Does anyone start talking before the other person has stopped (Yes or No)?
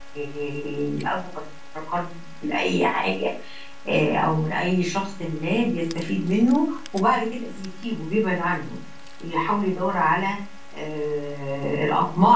No